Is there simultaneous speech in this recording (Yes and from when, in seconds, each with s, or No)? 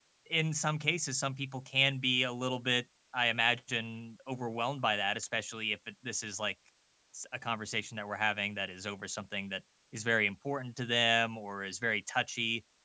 No